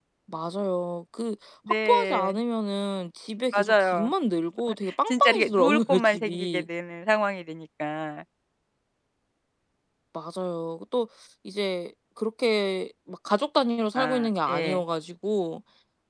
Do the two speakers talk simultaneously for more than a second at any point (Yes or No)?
Yes